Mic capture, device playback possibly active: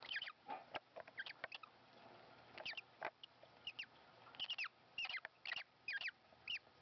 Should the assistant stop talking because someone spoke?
No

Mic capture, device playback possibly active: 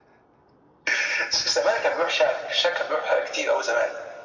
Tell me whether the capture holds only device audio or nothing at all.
Yes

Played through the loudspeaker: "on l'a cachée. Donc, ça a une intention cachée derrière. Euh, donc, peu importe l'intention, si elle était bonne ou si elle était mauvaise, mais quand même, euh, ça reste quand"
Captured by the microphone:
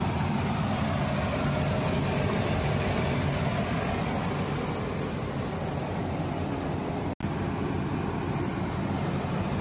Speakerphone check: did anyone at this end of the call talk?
No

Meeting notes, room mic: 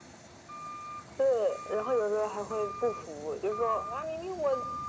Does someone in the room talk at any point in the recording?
No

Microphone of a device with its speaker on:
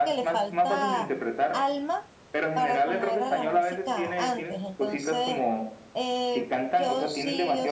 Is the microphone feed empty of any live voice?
No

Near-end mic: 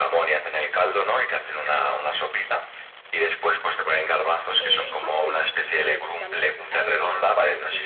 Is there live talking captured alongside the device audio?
Yes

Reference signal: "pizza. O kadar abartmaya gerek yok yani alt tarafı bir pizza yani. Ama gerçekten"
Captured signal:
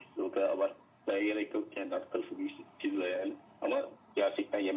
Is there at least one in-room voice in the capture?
No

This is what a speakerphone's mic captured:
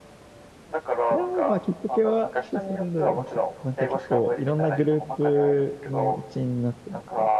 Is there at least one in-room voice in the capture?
Yes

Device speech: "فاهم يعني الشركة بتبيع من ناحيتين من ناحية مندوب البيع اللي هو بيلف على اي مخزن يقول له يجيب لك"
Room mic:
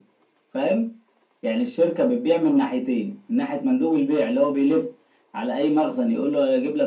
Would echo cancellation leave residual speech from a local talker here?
No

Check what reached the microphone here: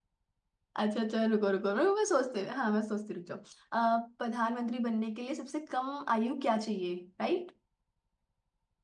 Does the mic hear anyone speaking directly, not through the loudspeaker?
Yes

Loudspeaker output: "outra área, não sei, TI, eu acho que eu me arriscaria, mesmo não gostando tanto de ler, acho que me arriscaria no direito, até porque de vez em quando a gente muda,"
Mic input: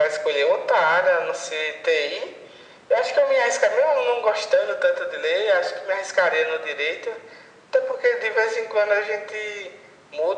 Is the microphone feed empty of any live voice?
Yes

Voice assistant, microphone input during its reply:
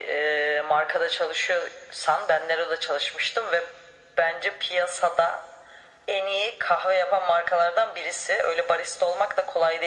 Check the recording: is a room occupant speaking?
No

